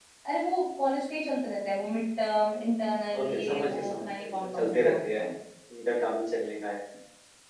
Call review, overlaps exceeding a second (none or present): present